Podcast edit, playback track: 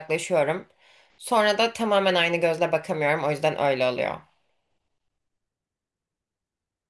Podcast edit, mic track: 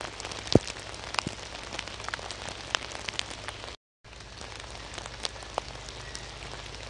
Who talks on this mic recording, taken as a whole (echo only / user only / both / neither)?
neither